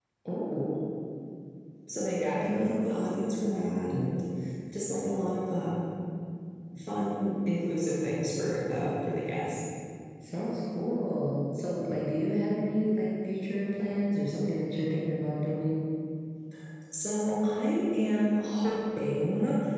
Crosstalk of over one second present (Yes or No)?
No